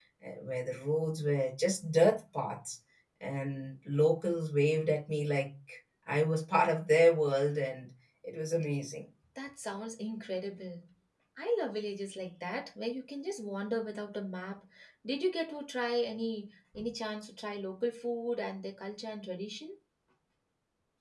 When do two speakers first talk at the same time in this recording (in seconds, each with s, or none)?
none